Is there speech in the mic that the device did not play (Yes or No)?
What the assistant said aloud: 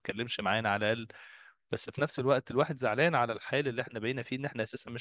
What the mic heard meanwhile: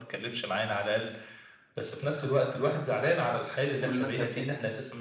Yes